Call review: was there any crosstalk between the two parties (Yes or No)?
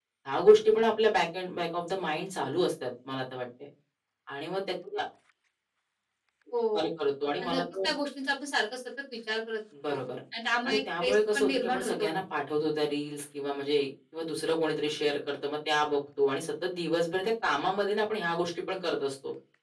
Yes